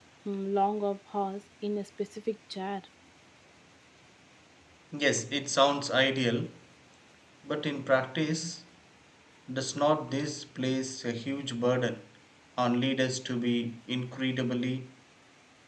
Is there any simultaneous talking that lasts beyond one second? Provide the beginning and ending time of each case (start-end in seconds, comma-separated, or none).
none